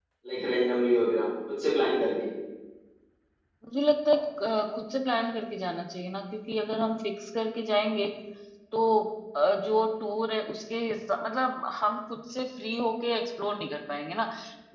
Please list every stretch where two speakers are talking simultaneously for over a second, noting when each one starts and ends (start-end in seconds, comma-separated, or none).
none